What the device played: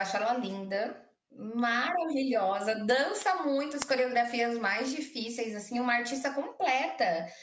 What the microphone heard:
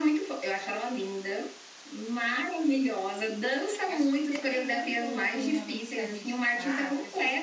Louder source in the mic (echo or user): echo